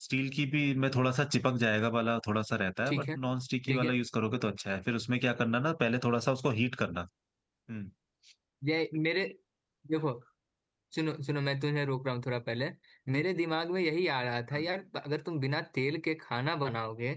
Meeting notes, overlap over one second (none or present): none